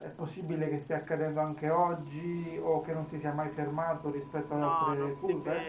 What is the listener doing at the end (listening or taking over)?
taking over